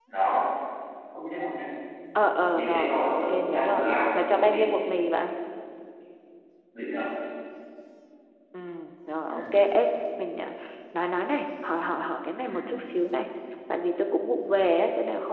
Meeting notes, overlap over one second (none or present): present